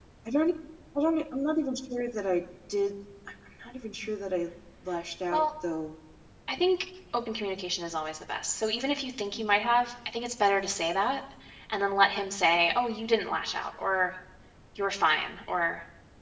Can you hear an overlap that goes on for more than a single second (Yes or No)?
No